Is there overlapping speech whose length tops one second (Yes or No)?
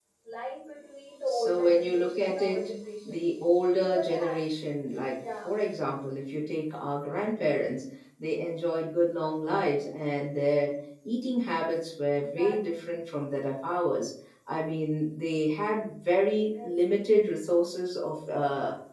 Yes